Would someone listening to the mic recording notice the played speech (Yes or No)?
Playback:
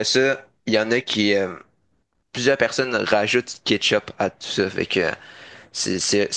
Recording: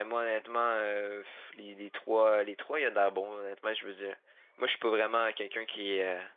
No